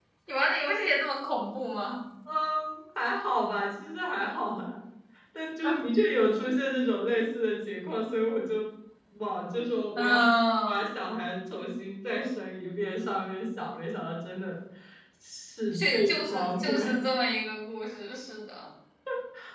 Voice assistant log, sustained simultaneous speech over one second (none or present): present